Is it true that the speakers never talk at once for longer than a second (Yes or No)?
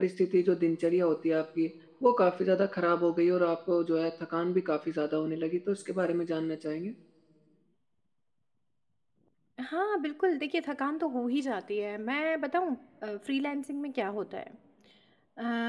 Yes